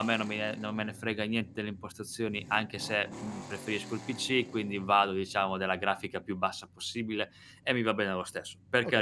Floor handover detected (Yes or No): Yes